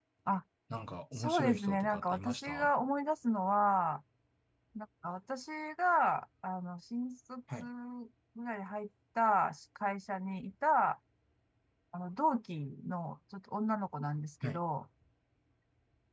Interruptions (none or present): present